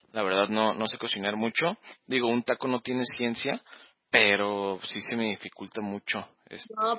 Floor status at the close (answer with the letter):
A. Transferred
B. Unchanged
A